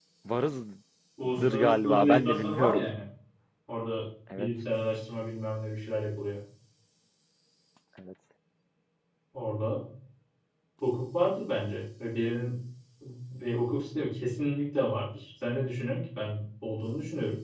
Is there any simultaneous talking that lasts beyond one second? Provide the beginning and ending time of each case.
1.4-2.8

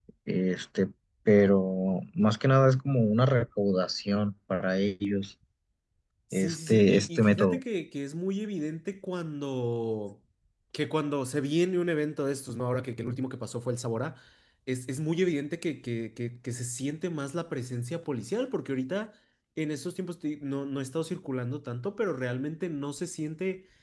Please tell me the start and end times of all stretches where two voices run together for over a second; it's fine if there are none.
6.3-7.6

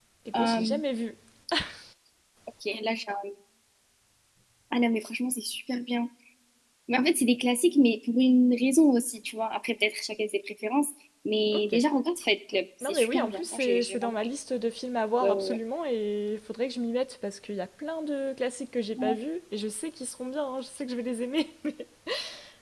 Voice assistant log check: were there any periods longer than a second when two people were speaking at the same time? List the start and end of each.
12.8-14.1

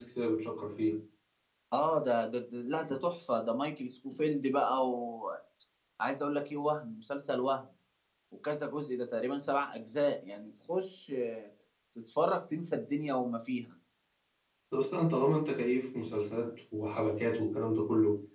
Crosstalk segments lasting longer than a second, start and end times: none

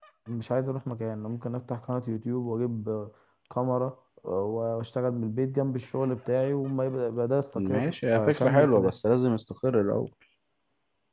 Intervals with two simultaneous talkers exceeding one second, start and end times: 7.5-9.0

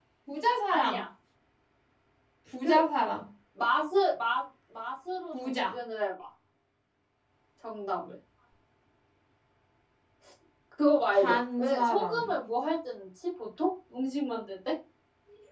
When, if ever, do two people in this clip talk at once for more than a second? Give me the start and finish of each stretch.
11.1-12.4

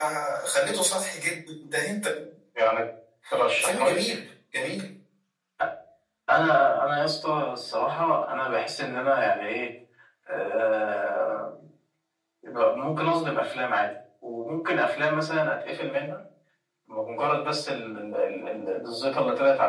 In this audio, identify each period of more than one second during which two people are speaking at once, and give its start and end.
none

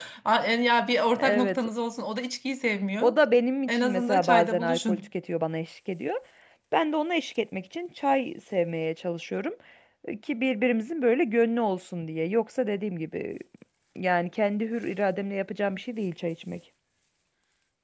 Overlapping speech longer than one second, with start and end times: 3.7-5.0

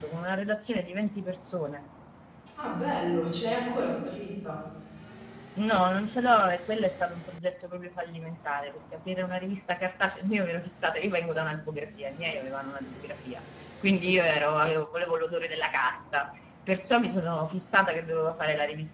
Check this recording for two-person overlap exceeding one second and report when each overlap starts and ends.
none

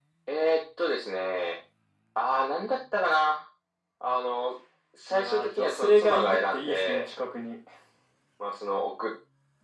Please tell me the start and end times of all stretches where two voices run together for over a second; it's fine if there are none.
5.1-7.0

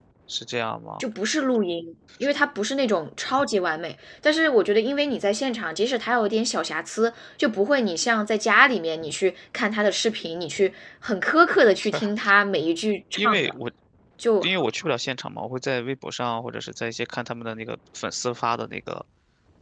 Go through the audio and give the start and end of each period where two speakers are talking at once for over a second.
none

